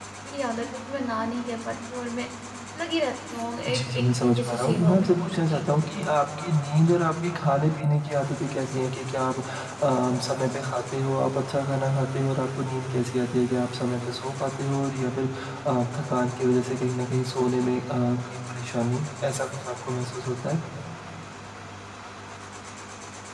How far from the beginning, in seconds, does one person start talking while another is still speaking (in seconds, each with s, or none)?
3.7 s